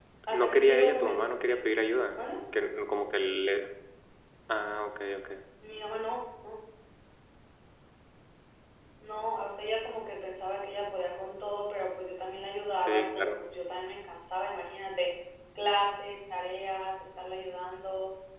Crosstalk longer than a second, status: present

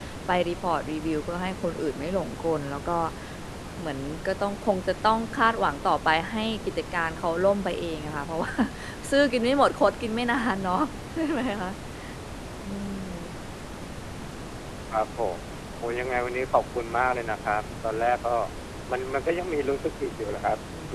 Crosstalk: none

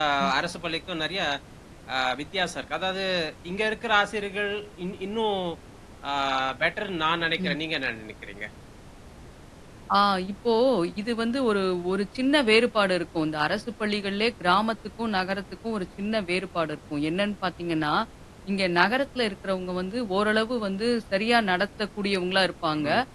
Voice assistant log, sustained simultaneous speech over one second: none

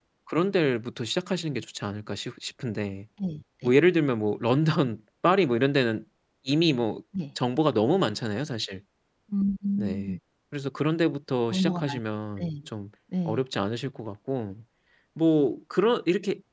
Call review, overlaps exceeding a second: none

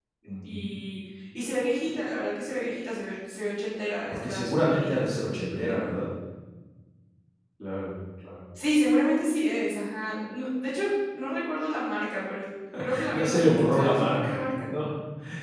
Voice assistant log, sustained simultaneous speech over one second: present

